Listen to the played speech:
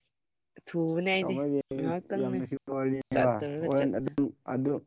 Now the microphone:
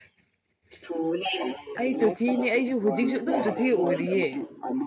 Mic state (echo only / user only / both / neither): both